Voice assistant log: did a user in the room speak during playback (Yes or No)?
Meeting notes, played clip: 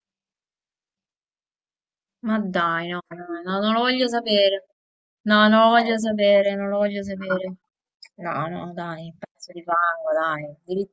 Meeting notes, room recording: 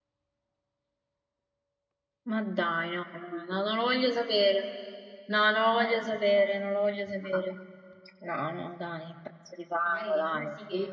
Yes